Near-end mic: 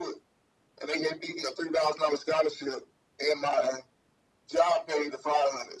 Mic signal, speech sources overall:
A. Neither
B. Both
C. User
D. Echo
D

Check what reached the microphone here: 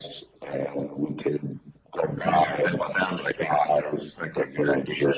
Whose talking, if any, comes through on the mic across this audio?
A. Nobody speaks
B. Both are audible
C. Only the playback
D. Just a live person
C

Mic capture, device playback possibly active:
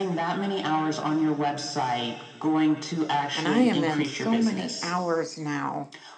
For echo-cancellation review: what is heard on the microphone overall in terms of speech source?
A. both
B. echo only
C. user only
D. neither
A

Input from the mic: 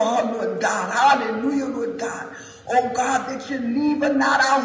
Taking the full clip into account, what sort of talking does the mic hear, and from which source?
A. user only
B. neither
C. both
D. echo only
D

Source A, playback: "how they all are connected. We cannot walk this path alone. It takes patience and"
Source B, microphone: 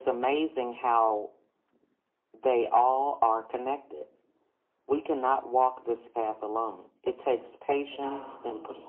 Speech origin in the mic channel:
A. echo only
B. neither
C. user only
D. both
D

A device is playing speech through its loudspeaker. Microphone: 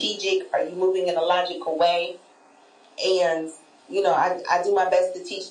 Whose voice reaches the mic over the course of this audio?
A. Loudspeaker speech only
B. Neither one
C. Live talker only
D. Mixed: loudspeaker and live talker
A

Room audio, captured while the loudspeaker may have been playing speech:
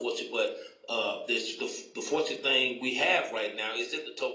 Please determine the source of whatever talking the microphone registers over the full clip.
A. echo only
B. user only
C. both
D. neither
A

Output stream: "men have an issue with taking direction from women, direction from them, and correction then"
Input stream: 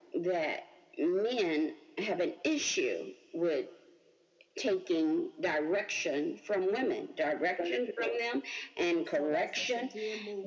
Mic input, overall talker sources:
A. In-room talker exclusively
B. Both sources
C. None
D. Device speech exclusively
B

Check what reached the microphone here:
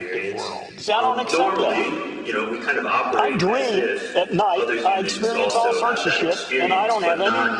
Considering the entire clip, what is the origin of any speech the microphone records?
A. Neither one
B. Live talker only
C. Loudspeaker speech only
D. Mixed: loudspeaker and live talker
D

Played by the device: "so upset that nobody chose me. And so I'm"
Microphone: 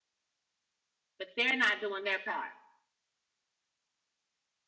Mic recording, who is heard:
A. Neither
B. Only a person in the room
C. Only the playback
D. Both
B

